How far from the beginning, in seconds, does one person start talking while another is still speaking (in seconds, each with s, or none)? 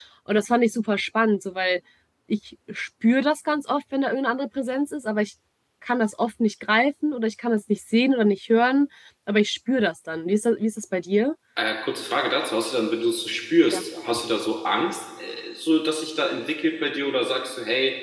none